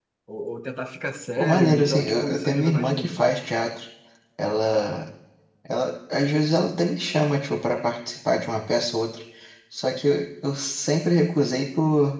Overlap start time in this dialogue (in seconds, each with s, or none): 1.4 s